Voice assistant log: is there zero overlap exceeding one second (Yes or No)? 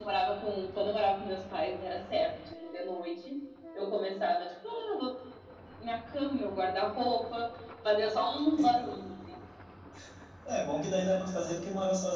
Yes